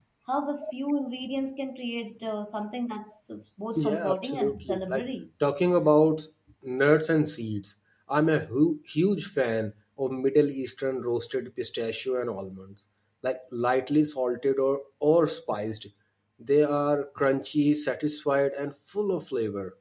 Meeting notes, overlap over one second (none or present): present